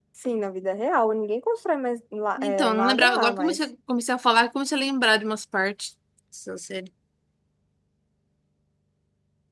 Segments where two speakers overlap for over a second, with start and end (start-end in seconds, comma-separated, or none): 2.4-3.6